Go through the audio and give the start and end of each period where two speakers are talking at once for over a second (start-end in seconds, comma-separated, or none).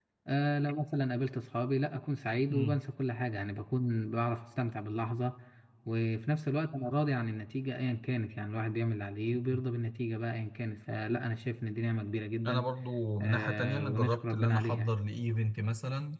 13.2-14.9